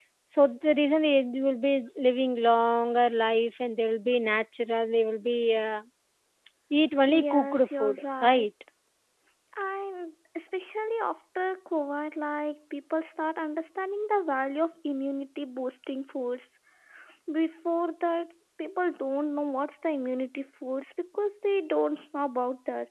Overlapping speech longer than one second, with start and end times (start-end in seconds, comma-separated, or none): 7.1-8.4